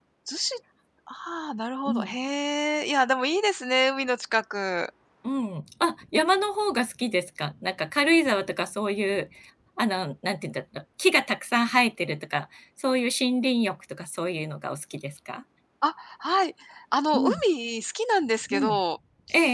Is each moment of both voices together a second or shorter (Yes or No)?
Yes